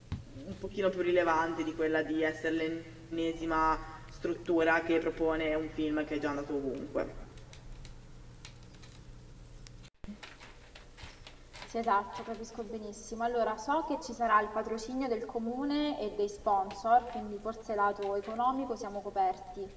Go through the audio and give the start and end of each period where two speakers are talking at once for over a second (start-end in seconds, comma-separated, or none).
none